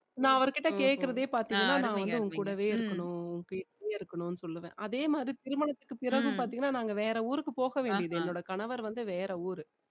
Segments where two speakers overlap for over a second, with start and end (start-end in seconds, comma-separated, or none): 1.6-3.0